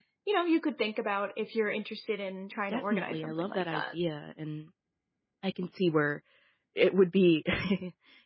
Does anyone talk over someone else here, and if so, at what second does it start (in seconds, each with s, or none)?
2.7 s